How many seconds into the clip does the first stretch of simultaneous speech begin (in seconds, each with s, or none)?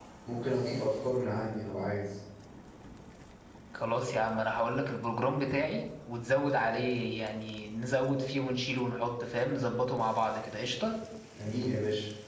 none